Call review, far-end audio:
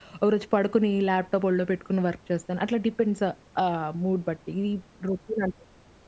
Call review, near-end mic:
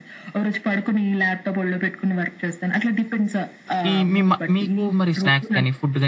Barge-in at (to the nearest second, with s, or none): 4 s